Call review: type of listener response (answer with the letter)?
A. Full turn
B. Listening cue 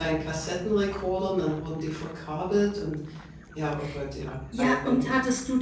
A